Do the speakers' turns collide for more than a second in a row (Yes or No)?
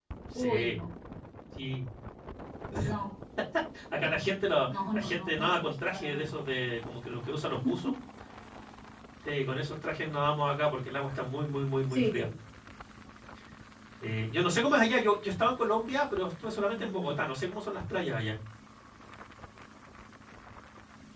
Yes